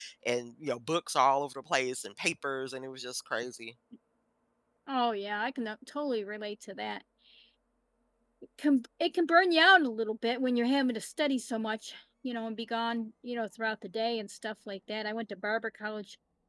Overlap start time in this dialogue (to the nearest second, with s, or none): none